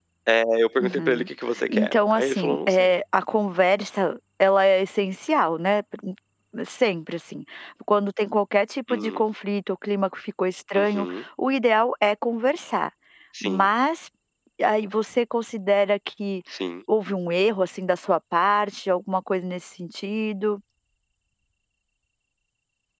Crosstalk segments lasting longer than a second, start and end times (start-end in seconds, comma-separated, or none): 1.7-3.0